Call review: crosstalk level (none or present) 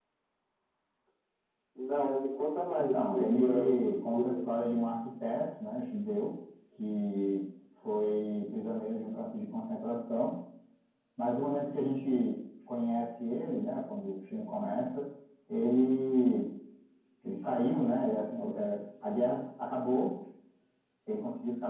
present